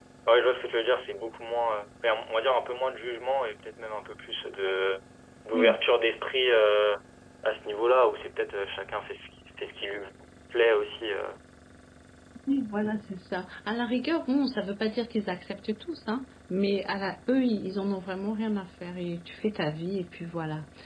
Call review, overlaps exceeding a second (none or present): none